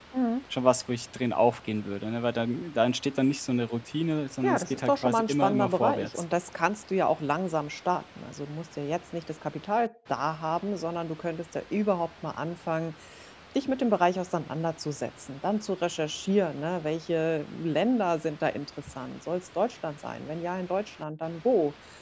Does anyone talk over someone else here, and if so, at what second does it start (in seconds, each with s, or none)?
4.4 s